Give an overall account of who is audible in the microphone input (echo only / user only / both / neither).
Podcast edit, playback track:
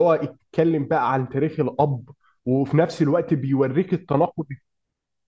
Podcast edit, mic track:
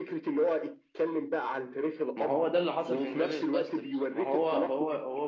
both